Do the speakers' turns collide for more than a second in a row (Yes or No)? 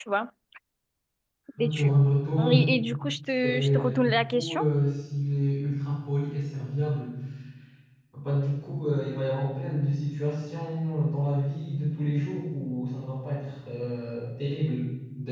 Yes